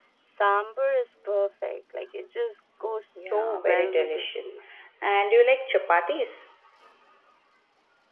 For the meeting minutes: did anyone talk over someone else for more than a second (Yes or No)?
Yes